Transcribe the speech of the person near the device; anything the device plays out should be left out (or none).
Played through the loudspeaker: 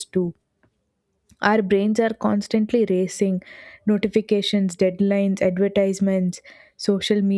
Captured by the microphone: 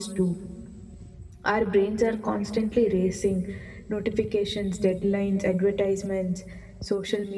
none